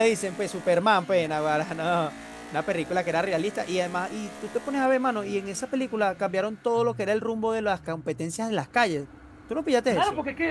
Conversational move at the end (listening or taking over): taking over